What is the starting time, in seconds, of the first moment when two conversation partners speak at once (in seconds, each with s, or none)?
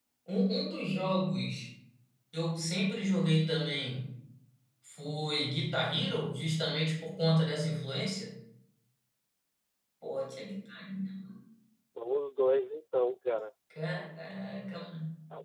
none